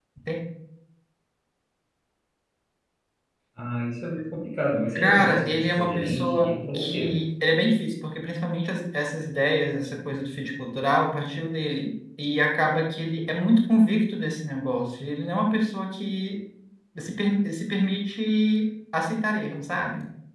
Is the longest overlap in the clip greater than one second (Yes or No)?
Yes